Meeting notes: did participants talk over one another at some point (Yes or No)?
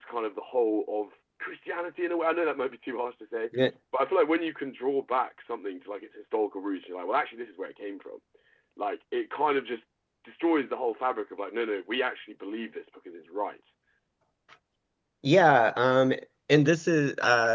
No